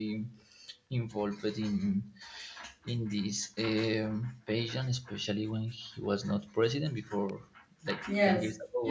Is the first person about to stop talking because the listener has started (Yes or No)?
Yes